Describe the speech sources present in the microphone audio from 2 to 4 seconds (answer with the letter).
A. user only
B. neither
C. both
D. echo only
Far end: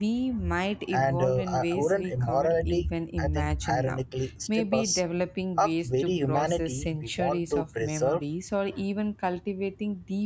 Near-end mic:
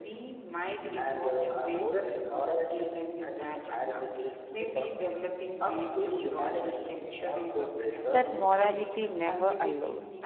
D